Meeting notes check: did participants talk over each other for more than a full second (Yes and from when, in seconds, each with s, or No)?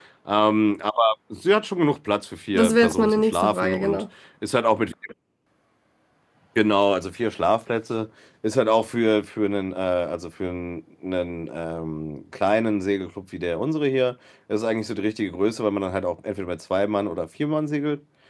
Yes, from 2.5 s